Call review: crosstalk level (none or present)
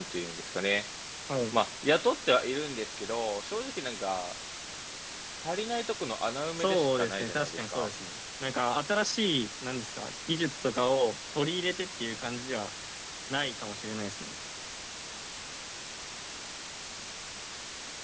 present